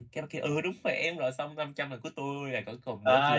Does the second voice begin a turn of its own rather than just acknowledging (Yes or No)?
Yes